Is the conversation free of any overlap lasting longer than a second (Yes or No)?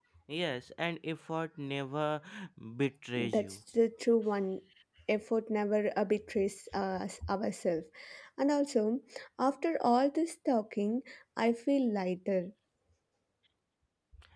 Yes